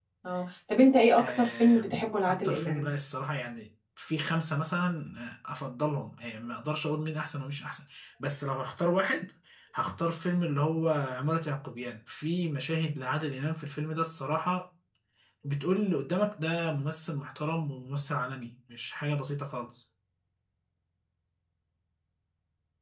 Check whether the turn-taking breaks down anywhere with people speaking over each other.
Yes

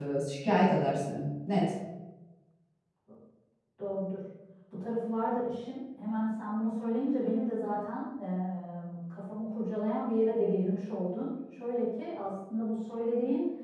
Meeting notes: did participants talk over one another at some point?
No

